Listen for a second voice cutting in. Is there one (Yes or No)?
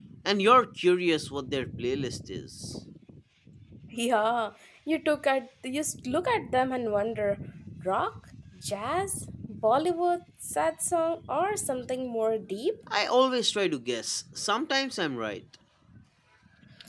No